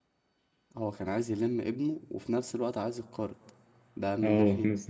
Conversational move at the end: taking over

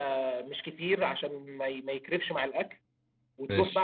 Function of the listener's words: listening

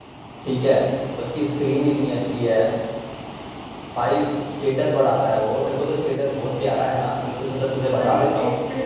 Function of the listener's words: taking over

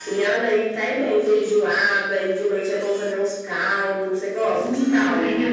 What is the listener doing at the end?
taking over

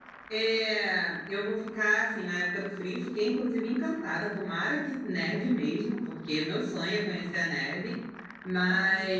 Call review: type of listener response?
listening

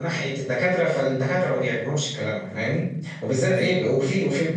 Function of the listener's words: listening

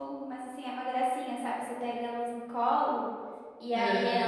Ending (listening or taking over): listening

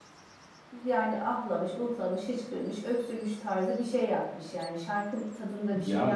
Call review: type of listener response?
taking over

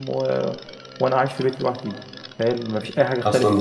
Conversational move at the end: taking over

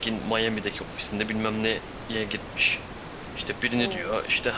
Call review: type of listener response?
listening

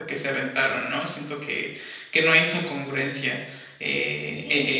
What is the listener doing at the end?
taking over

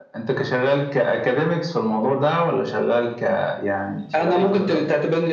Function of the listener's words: taking over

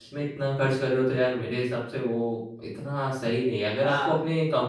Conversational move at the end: listening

